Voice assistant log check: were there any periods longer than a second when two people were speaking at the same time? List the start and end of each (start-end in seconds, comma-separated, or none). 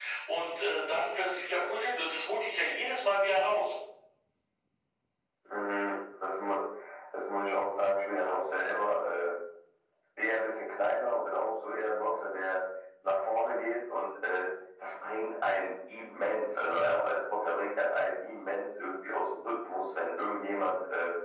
none